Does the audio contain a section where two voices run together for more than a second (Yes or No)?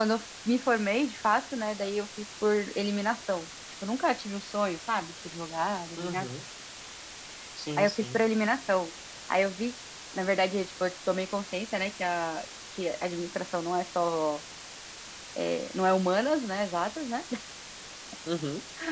No